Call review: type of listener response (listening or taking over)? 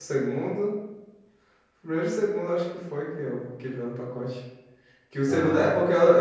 listening